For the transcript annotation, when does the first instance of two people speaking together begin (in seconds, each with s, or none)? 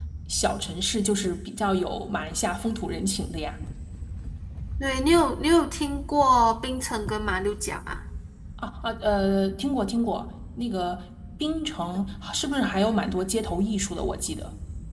none